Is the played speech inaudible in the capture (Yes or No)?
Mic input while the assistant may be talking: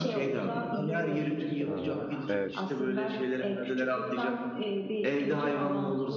No